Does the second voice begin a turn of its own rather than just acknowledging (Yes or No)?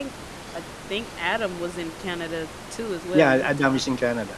Yes